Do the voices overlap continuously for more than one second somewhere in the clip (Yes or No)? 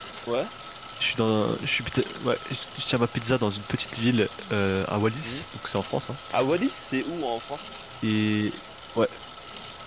No